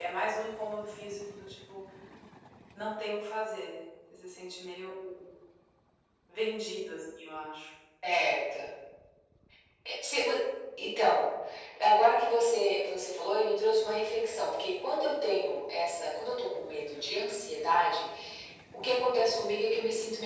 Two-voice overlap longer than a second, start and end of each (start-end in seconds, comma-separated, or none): none